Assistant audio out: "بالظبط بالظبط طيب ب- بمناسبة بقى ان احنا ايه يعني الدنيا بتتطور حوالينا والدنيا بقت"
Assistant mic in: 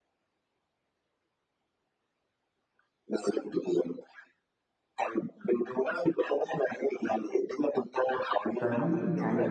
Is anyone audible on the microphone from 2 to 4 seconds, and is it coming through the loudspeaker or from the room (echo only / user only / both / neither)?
echo only